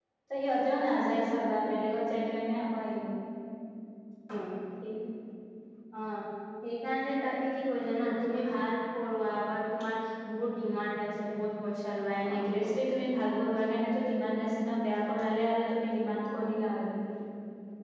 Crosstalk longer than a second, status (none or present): none